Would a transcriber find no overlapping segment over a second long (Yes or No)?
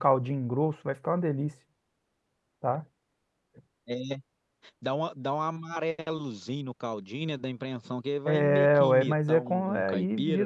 No